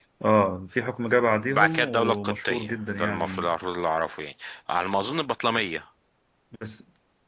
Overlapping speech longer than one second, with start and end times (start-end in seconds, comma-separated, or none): 1.4-3.5